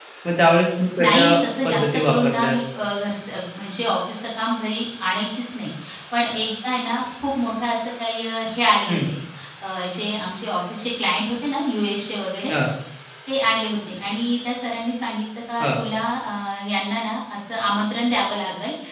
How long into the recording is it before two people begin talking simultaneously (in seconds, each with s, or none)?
1.0 s